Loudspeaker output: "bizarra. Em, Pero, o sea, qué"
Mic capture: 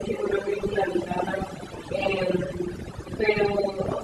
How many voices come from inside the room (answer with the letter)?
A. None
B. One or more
A